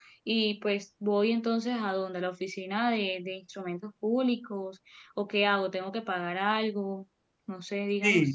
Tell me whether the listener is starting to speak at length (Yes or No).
Yes